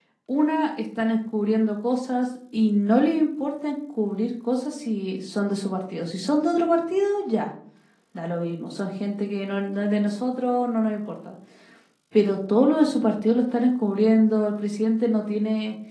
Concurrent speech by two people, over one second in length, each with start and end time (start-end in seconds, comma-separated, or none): none